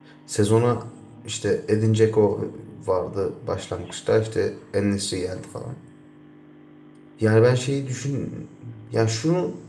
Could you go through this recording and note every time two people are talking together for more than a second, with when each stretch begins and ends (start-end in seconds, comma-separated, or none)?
none